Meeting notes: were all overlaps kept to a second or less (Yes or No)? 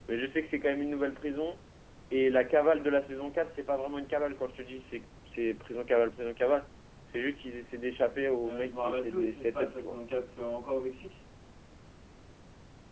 No